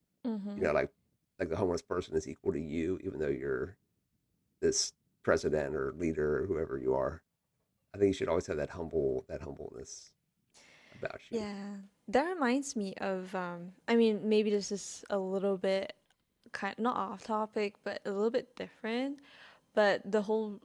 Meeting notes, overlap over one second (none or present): none